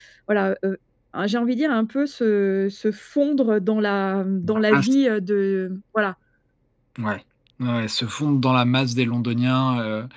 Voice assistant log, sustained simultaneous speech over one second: none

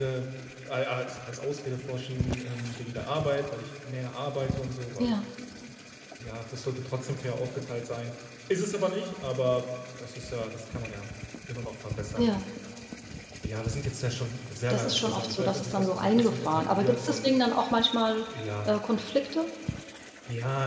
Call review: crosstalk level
present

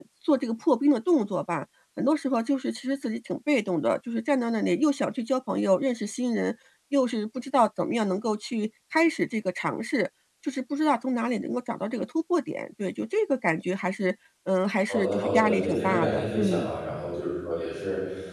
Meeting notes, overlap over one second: present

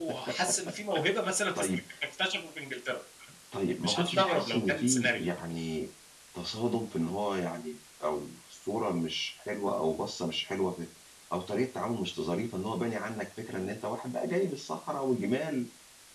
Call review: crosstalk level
present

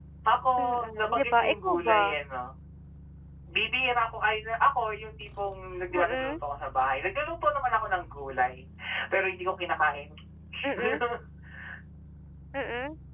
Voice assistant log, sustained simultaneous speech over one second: present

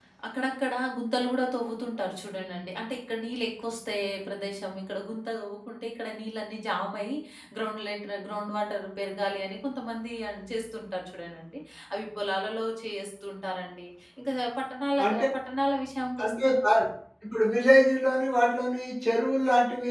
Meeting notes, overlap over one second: none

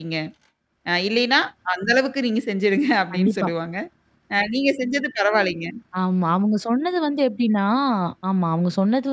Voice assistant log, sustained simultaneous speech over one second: none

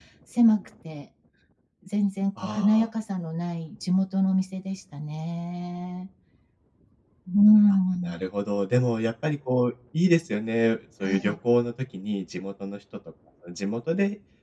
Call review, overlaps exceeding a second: none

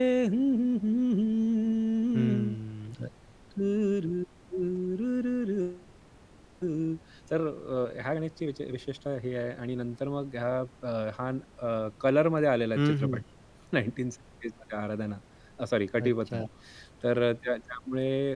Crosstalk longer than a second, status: none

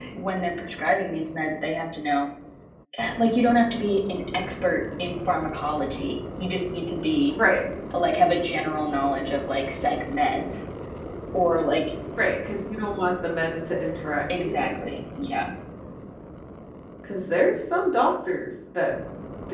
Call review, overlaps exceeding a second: none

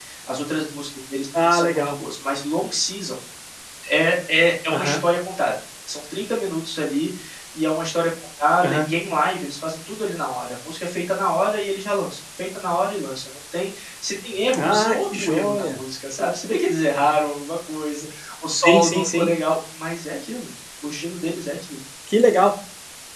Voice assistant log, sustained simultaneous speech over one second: present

